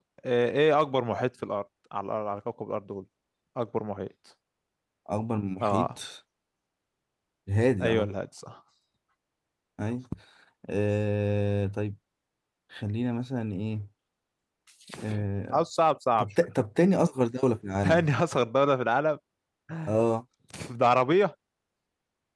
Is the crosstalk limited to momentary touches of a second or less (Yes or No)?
Yes